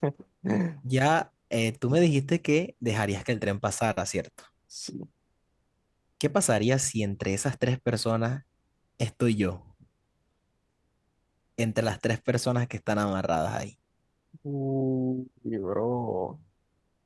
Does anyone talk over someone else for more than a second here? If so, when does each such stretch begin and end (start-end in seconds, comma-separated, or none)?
none